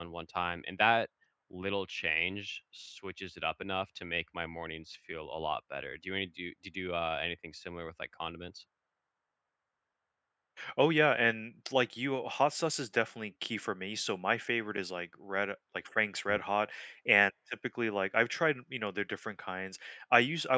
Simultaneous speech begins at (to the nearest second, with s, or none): none